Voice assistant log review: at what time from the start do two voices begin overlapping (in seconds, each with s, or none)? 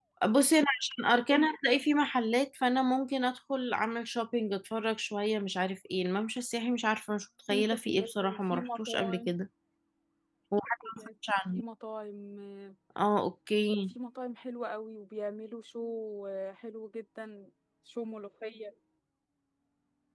7.5 s